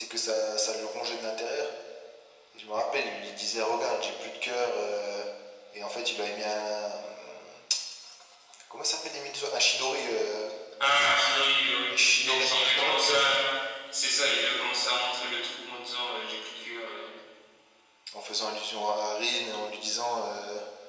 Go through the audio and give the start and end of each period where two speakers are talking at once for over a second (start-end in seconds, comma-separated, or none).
11.9-13.3